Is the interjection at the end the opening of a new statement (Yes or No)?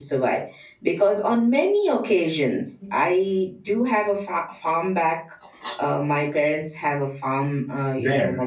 No